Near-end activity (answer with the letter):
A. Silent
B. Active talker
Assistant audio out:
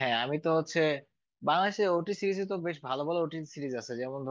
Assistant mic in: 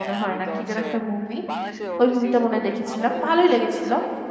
B